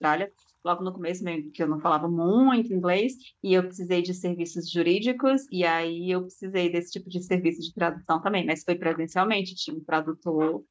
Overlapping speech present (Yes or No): No